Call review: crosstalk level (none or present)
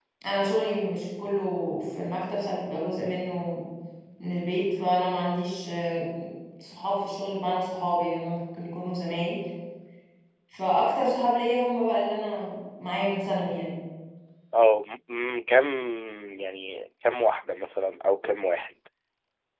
none